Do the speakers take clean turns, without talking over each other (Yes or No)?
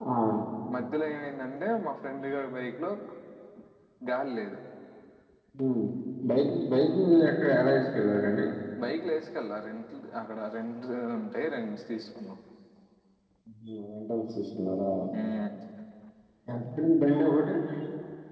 Yes